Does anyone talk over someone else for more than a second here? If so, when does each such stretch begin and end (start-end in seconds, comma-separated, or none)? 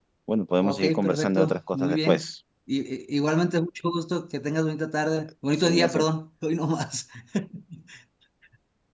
0.6-2.3